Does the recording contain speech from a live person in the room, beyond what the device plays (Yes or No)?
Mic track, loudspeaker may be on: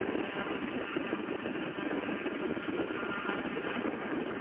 No